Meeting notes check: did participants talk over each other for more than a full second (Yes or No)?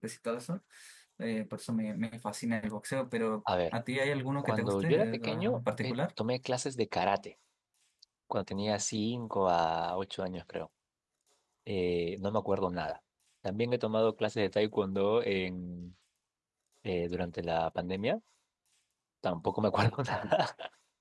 Yes